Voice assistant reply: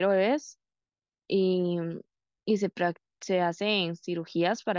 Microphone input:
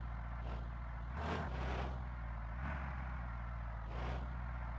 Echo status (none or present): none